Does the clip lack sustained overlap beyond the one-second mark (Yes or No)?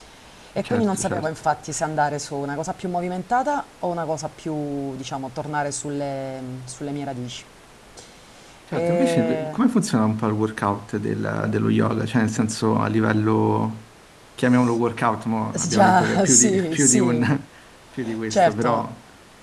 No